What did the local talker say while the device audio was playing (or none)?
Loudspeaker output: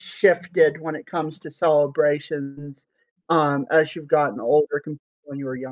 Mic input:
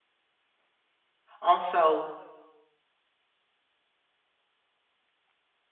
also,